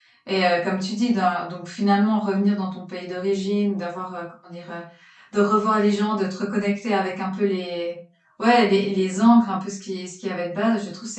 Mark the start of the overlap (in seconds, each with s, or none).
none